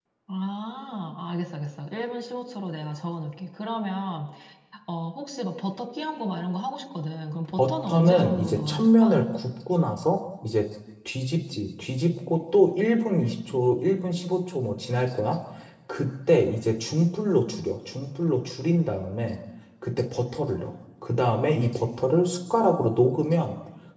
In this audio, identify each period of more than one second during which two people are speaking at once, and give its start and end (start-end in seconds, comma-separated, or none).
7.6-9.3